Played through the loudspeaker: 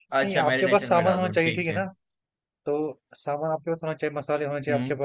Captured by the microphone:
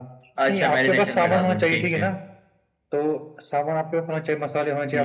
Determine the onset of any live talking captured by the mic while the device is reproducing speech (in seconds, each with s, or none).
none